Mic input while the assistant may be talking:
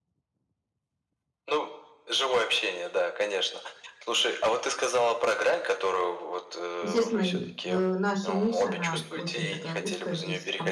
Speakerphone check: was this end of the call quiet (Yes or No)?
No